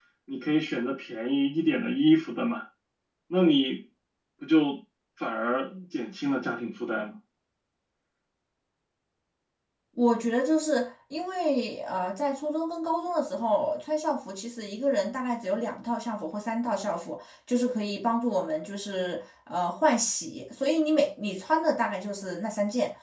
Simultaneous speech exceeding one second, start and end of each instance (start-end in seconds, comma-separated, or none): none